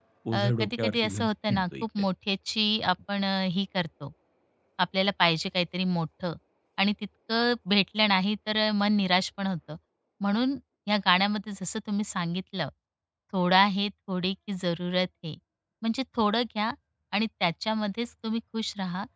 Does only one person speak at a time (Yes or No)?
No